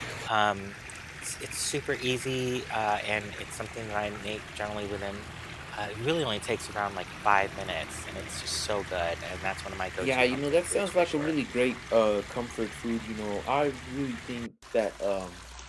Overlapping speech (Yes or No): Yes